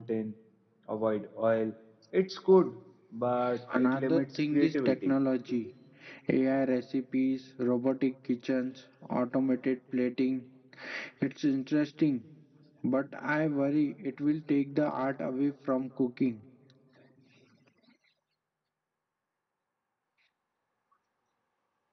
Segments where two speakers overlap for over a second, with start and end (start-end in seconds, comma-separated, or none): 3.7-5.1